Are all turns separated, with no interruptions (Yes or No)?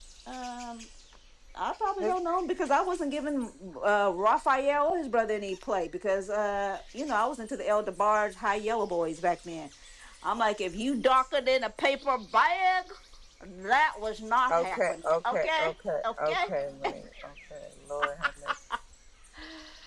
No